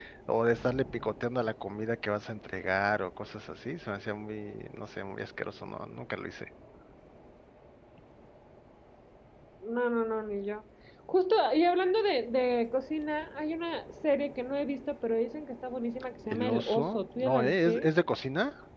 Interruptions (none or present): present